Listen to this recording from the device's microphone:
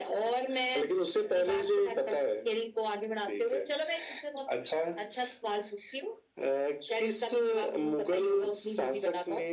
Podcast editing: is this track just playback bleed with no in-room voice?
Yes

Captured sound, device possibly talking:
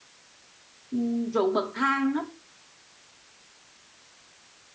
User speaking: Yes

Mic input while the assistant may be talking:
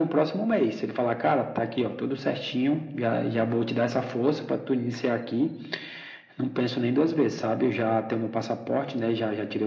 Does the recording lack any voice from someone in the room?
Yes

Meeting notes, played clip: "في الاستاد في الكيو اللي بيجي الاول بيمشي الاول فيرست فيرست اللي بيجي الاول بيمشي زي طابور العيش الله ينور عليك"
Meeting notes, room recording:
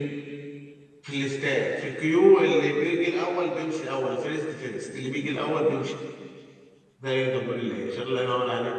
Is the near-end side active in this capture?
No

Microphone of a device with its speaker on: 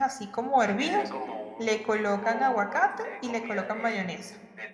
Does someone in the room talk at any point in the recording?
Yes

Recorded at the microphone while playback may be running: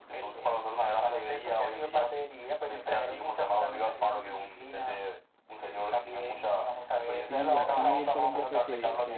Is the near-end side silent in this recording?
No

